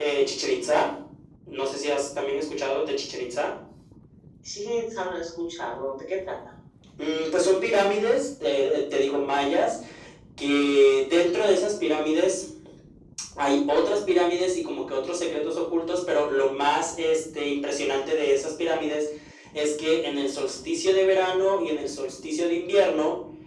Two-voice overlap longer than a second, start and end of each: none

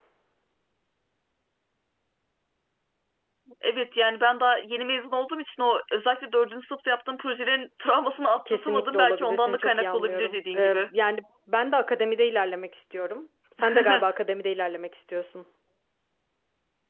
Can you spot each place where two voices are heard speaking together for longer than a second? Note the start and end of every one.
8.5-10.9

